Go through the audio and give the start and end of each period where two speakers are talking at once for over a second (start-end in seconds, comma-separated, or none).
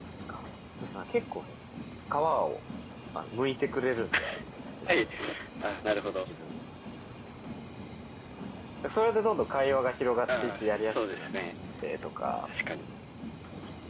10.3-11.6